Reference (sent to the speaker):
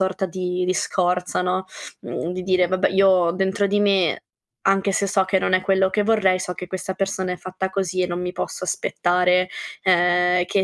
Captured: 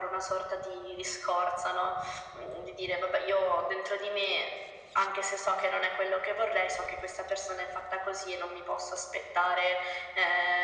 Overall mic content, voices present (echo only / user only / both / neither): echo only